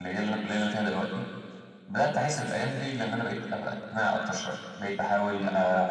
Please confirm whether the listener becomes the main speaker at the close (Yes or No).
No